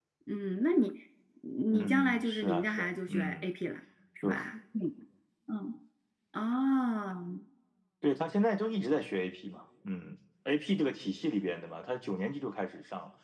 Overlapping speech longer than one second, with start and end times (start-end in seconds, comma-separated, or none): 1.7-3.5